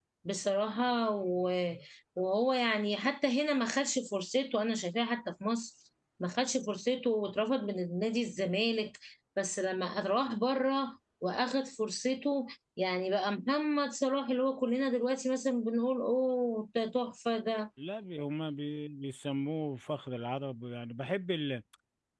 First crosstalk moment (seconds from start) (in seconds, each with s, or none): none